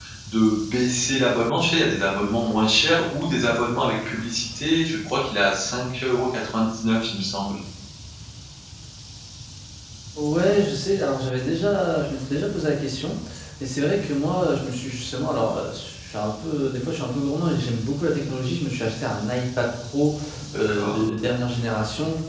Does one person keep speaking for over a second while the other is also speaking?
No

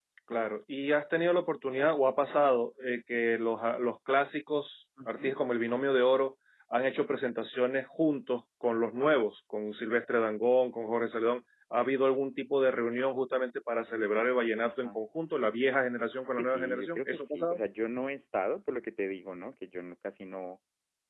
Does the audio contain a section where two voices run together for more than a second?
Yes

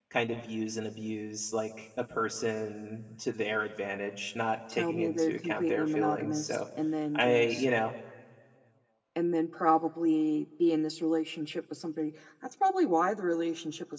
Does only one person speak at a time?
No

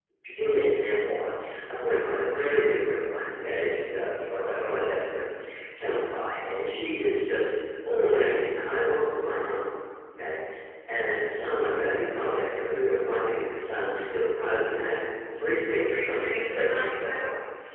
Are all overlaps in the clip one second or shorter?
No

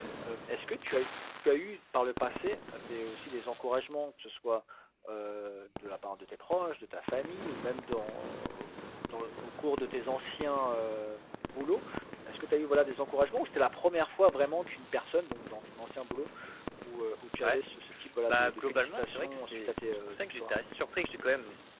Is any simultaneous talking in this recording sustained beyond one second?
Yes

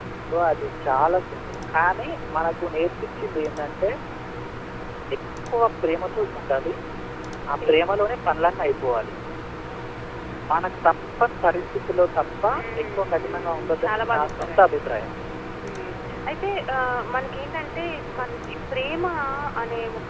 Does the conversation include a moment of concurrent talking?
Yes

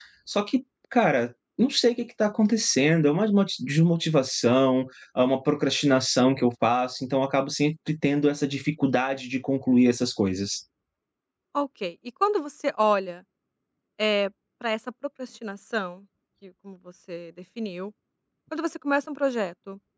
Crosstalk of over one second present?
No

